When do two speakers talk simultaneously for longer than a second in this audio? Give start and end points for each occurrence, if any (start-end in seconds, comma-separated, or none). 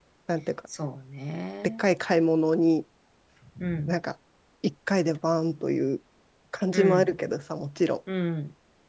none